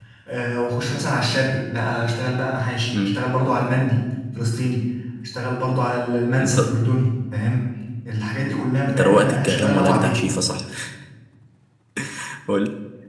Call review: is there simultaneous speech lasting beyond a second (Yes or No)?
Yes